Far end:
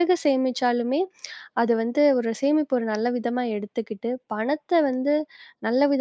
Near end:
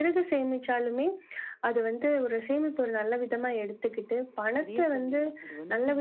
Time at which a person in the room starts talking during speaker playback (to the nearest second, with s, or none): 5 s